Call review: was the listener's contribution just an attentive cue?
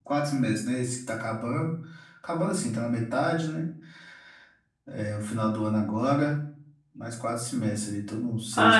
No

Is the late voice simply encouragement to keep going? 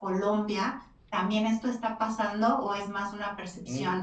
No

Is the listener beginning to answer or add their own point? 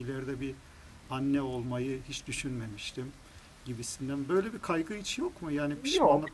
Yes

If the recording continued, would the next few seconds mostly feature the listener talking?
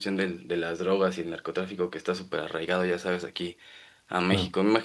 No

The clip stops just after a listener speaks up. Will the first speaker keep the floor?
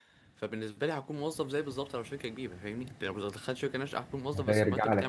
No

